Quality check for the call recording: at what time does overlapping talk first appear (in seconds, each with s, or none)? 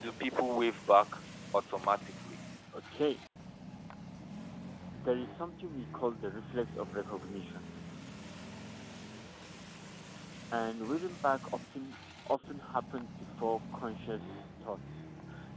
none